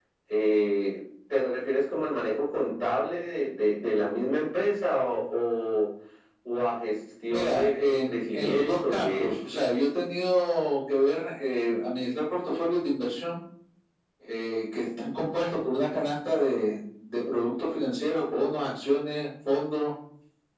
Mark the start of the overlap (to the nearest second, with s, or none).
7 s